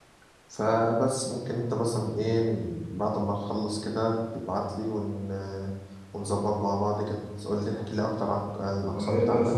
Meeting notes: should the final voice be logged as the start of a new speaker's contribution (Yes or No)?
Yes